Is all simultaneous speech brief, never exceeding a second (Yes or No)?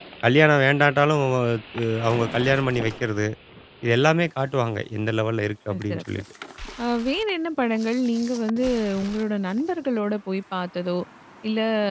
Yes